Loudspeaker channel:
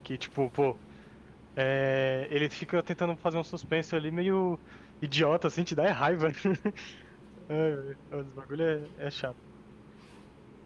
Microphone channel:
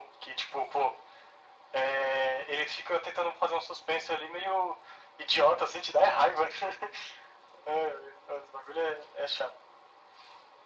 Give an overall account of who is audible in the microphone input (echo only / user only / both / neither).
echo only